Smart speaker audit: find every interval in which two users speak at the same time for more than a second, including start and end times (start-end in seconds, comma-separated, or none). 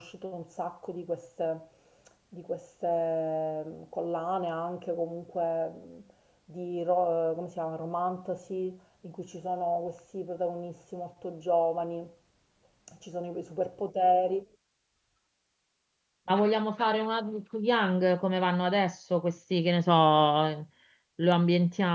none